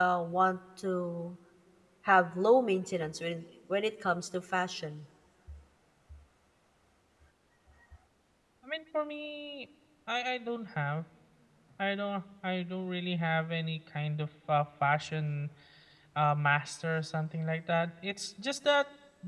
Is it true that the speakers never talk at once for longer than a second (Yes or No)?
Yes